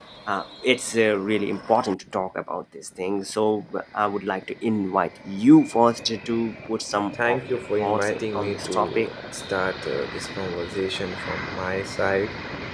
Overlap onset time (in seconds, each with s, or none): 7.2 s